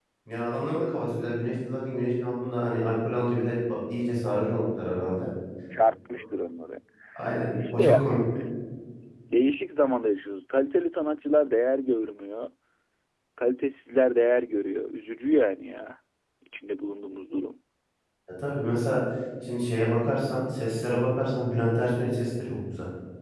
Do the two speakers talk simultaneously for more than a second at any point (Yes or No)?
No